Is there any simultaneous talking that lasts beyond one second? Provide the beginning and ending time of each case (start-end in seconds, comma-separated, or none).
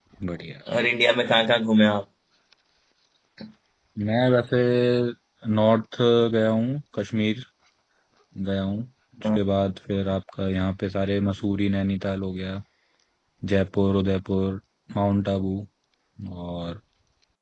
none